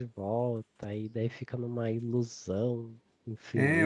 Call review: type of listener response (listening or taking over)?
taking over